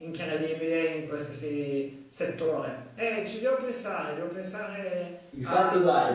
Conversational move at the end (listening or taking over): taking over